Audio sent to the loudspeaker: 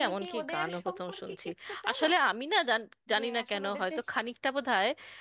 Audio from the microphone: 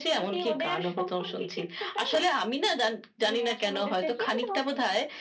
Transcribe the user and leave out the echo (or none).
কিন্তু